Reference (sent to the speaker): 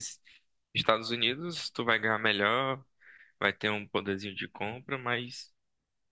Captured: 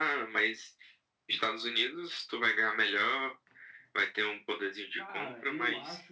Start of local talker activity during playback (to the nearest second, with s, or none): 5 s